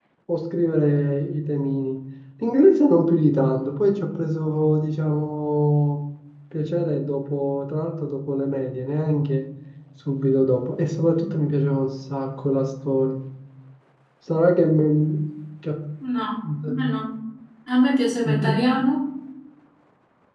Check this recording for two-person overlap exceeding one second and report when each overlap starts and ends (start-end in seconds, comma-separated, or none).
none